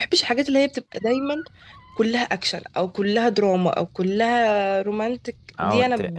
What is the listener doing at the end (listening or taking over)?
taking over